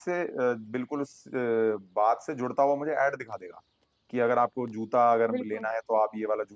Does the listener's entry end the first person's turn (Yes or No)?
No